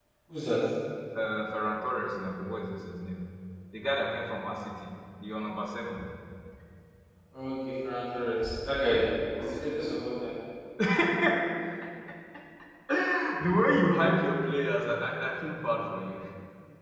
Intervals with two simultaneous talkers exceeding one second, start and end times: none

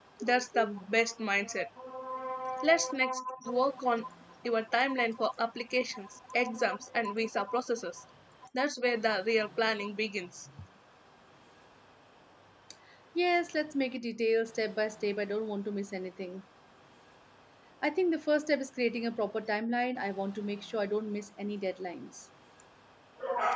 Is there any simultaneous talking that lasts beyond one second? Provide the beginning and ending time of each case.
none

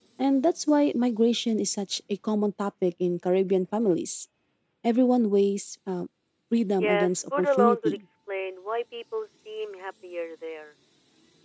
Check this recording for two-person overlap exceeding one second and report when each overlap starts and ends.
6.8-8.0

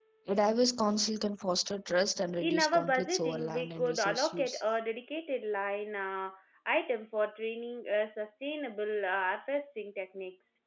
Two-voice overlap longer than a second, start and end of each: 2.4-4.6

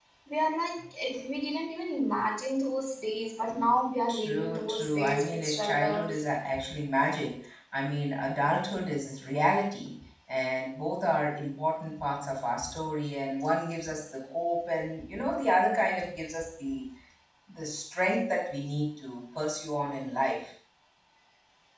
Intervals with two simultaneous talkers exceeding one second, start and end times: 4.1-6.2

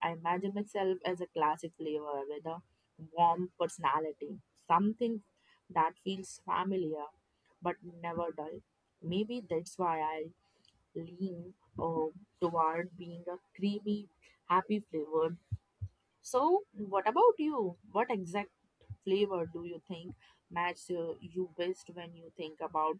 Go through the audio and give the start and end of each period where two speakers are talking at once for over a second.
none

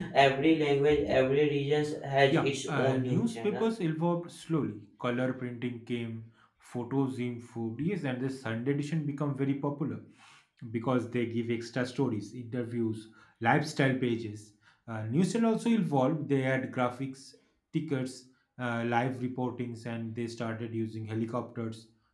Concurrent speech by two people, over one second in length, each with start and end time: 2.3-3.6

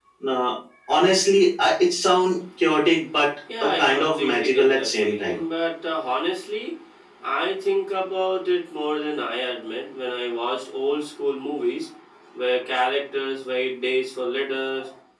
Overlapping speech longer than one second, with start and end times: 3.6-5.4

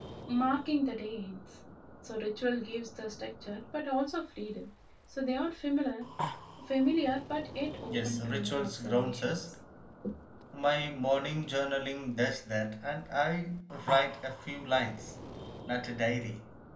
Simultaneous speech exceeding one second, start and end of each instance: 7.8-9.4

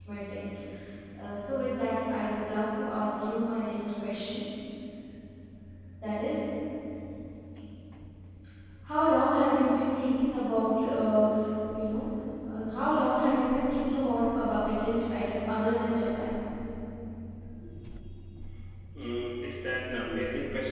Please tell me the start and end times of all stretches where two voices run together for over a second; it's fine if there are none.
none

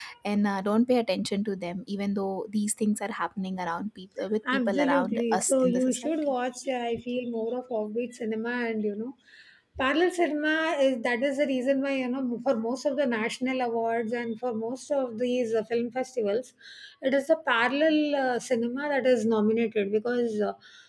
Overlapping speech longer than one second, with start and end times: 4.5-6.3

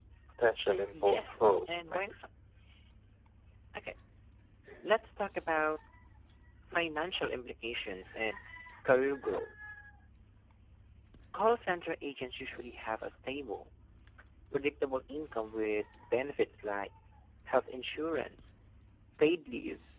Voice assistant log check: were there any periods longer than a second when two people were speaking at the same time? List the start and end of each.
0.9-2.1

